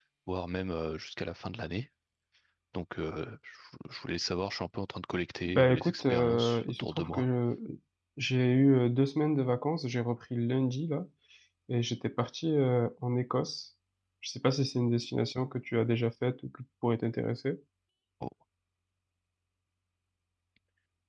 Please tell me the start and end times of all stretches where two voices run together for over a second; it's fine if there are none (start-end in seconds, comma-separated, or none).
5.4-7.2